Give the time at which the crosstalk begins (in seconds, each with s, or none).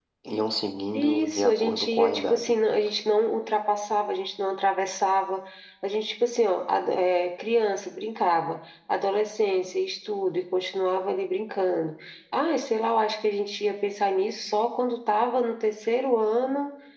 1.0 s